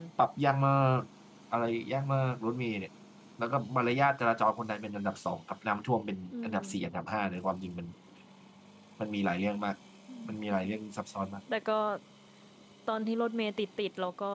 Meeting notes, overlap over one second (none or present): none